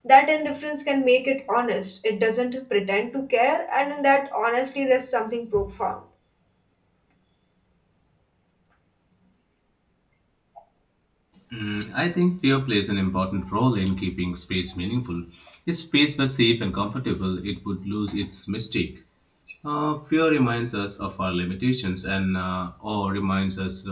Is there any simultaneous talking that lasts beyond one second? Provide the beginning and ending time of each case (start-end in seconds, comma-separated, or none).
none